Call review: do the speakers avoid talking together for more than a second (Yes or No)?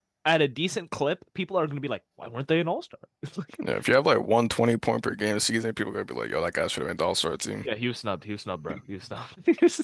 Yes